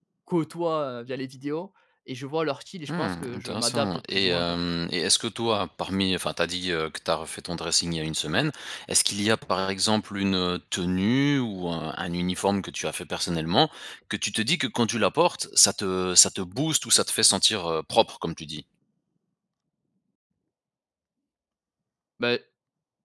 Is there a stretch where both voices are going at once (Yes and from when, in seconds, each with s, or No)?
Yes, from 2.9 s